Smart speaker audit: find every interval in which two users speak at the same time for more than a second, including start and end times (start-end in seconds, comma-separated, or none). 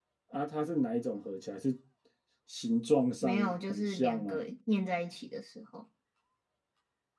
3.2-4.4